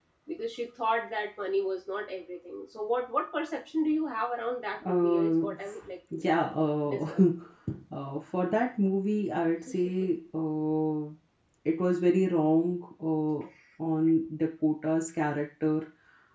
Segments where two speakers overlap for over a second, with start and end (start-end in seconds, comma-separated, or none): 4.8-6.5